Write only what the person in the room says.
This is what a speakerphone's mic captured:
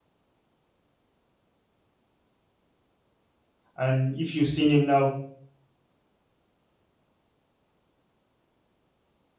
and if you've seen him now

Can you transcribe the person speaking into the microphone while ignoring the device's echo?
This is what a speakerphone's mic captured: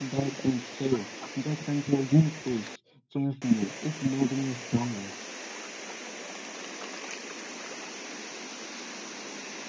none

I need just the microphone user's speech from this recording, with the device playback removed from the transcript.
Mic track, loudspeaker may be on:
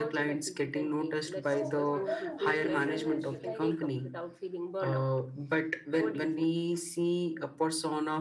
So, what are the ways in which, like,

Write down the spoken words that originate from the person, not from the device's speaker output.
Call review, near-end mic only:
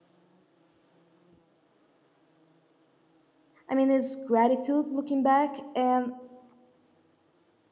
I mean, it's gratitude looking back and

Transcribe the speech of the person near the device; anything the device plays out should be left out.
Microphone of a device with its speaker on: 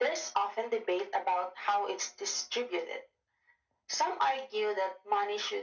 none

